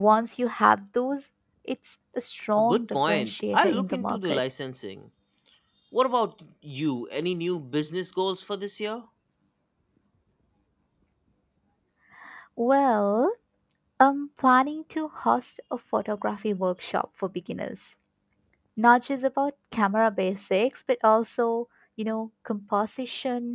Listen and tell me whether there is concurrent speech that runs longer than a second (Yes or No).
Yes